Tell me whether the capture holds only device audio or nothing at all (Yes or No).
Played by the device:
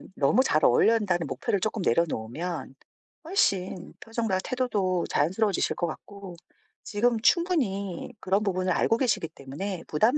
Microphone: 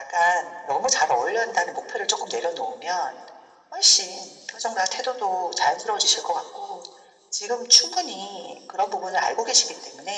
Yes